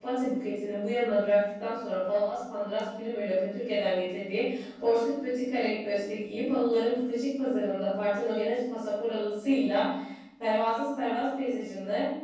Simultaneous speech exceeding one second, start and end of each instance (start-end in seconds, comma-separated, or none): none